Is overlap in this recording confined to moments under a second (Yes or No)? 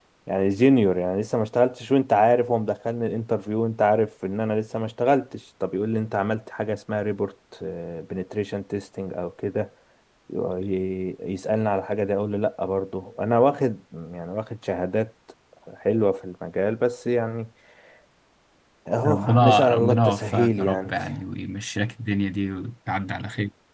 No